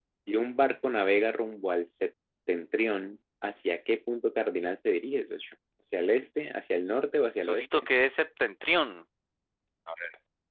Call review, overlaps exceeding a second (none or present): none